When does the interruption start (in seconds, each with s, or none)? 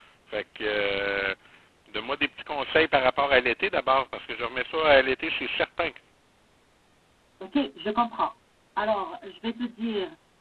none